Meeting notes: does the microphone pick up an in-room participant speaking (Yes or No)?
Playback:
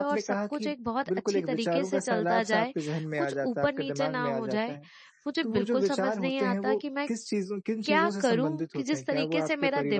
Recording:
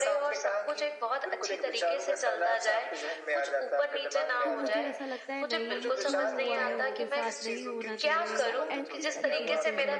Yes